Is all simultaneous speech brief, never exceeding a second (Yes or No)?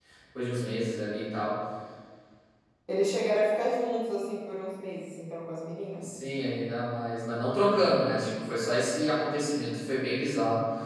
Yes